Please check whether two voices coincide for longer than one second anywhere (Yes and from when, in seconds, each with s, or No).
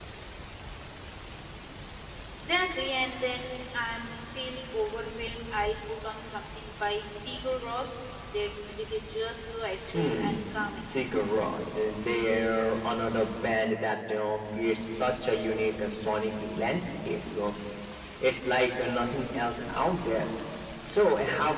No